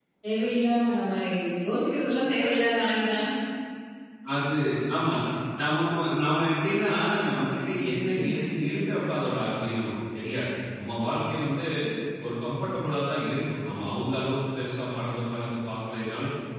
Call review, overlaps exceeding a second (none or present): none